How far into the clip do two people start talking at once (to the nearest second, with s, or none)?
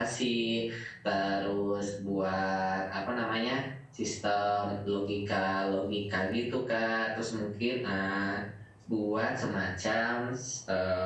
none